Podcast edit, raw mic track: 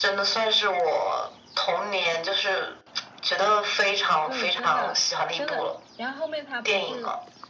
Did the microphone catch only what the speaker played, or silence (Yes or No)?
No